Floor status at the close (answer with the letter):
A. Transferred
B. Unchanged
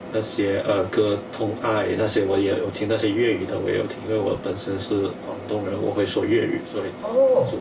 A